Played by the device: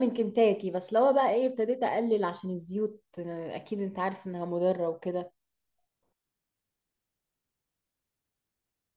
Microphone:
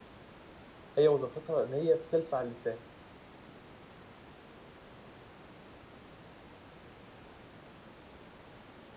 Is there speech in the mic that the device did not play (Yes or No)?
Yes